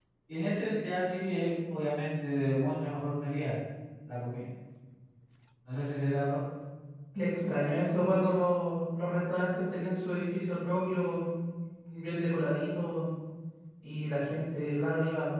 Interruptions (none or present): none